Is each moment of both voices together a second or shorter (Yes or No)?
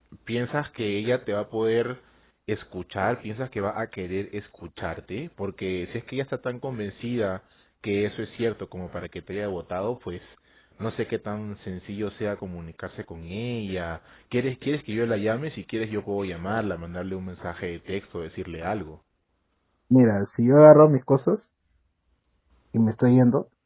Yes